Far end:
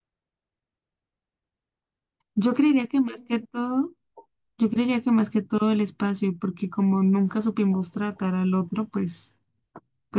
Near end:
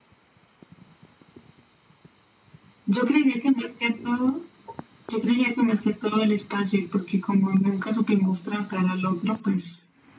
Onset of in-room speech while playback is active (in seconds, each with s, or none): none